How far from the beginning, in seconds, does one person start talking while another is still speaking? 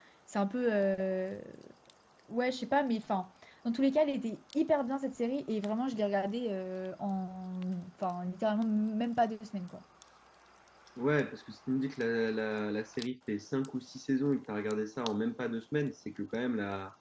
none

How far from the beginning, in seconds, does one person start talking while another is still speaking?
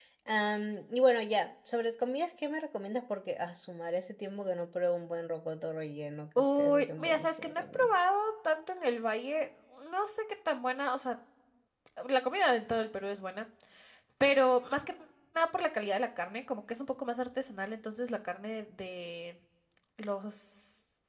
6.4 s

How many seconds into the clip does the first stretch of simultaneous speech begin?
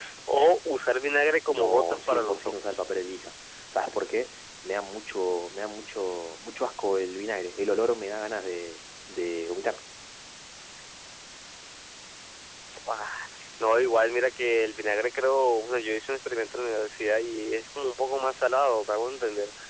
1.5 s

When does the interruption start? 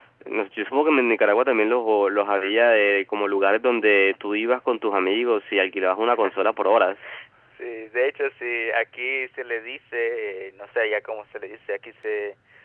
none

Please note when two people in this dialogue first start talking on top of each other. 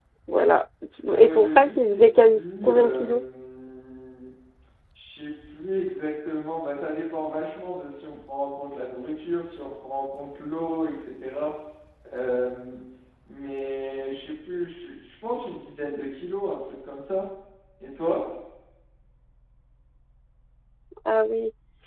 1.2 s

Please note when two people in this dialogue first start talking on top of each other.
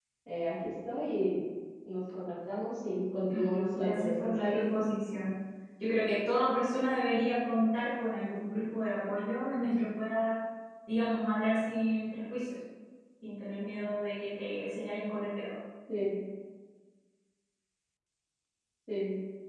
3.3 s

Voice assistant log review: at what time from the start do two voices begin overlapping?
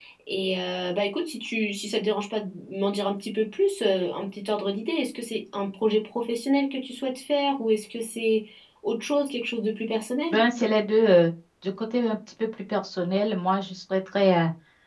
none

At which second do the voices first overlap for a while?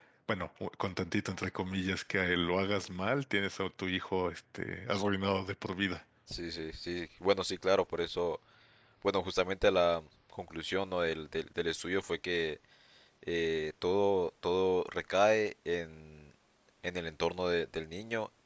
none

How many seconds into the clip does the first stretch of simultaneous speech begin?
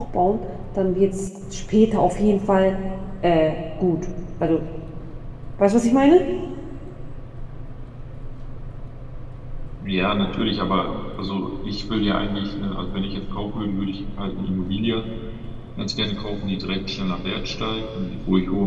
none

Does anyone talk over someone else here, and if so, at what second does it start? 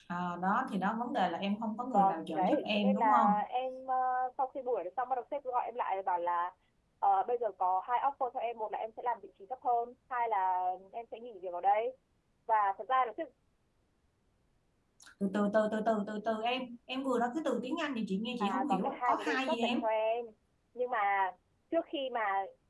1.9 s

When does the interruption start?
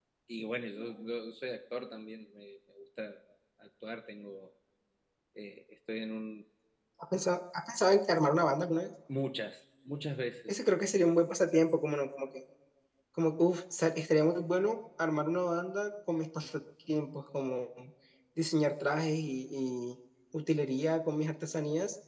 none

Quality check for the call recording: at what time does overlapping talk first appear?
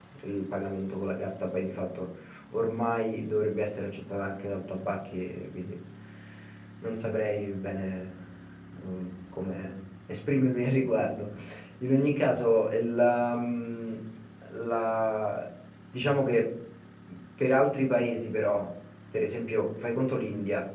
none

